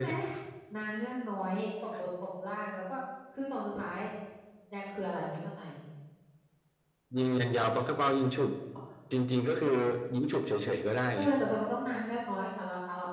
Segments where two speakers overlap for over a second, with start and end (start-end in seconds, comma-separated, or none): none